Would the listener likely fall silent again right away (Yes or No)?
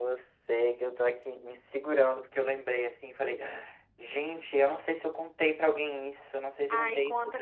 No